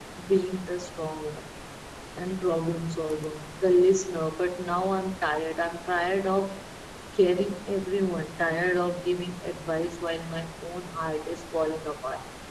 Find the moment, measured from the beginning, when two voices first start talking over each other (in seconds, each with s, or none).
none